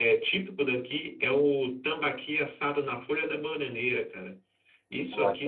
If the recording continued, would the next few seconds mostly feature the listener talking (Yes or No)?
No